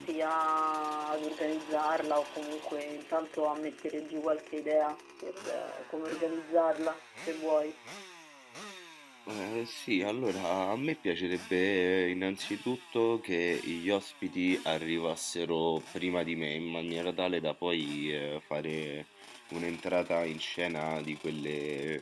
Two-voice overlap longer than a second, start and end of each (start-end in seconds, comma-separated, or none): none